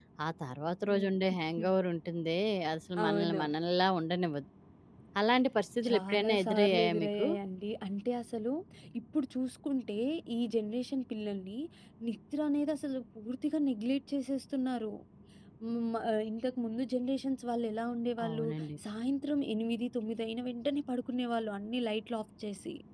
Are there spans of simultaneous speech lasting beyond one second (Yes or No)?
Yes